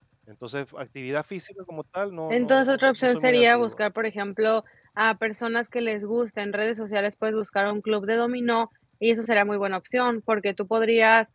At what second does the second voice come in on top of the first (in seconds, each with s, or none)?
2.3 s